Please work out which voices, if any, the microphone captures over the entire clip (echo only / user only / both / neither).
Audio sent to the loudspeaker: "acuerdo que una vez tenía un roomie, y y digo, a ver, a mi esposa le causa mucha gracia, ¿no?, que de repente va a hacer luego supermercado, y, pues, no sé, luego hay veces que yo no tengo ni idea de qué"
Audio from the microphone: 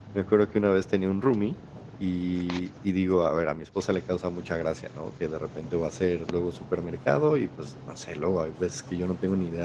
echo only